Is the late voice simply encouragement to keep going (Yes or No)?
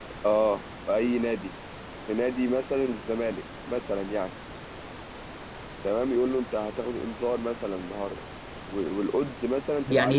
No